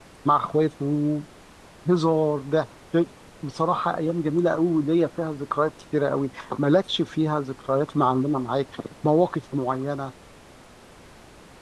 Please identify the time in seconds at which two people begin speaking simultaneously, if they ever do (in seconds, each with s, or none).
none